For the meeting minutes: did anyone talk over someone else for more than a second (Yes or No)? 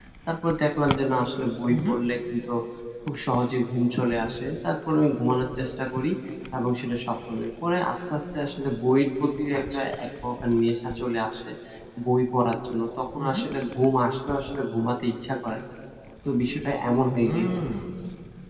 No